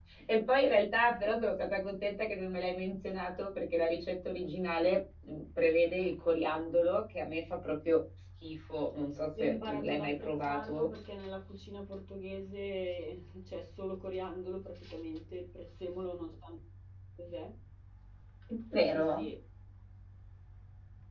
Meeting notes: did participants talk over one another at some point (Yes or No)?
Yes